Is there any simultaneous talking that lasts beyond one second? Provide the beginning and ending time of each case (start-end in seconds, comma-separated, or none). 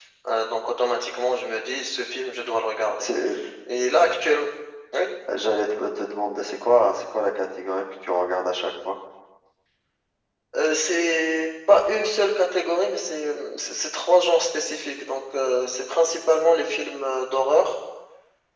none